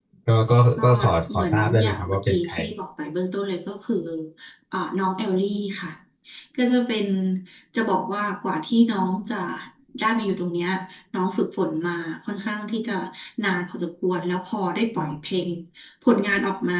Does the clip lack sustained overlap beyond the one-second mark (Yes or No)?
No